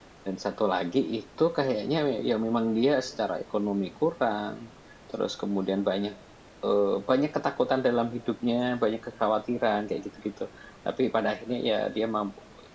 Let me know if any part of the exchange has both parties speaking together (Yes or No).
No